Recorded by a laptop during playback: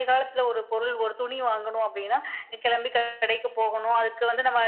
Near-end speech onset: none

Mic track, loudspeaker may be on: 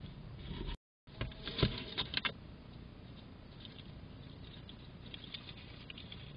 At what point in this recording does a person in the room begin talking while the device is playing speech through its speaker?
none

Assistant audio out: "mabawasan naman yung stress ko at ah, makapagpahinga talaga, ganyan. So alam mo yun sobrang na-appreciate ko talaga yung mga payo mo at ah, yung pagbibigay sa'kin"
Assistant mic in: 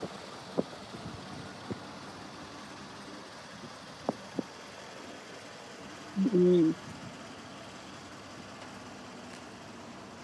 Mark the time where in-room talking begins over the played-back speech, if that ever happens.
6.2 s

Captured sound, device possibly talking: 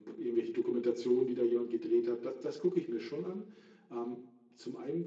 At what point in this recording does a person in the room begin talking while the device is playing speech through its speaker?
none

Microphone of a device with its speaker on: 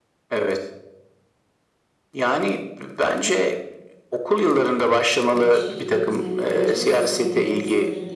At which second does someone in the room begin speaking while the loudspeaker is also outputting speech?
5.3 s

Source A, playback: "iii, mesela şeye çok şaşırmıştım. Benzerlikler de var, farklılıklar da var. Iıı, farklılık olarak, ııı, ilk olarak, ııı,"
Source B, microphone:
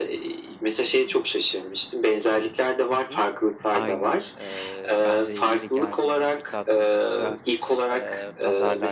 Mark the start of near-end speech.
2.9 s

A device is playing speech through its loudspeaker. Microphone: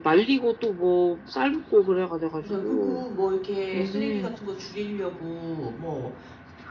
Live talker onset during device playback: 2.4 s

